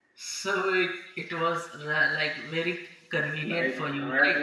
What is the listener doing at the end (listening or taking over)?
taking over